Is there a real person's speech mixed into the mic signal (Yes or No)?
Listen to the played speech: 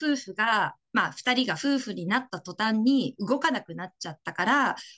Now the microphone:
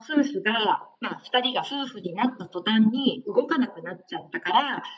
No